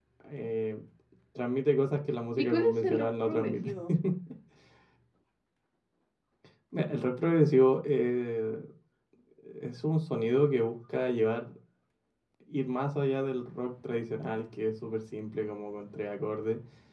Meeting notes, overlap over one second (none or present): present